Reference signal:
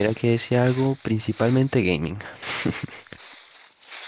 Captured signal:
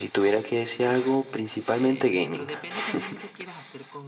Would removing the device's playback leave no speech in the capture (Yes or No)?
No